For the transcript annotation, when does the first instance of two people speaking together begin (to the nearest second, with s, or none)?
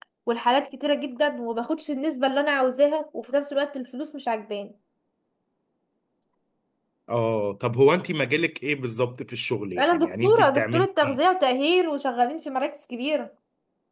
10 s